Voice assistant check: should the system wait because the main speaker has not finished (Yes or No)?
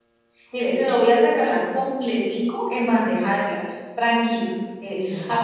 Yes